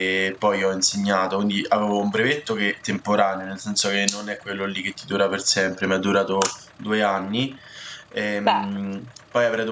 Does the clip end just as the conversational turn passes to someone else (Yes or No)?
No